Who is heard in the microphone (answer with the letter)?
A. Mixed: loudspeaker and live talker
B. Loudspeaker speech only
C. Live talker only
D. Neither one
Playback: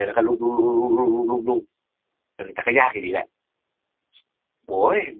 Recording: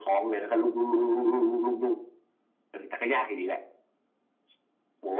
B